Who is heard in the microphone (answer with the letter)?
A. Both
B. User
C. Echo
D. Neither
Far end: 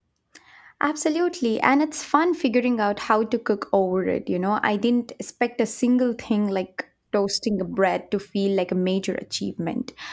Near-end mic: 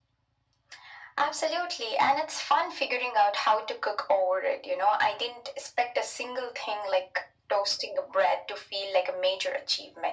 C